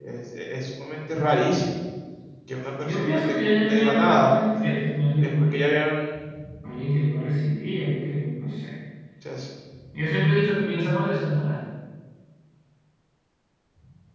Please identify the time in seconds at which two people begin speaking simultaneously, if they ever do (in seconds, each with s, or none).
2.8 s